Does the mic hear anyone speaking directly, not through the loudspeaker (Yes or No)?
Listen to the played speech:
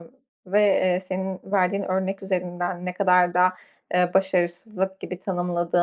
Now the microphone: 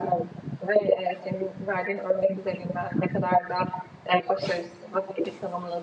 No